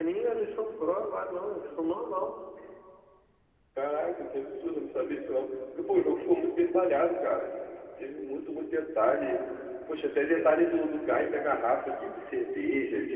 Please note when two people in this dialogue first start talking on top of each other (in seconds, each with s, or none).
none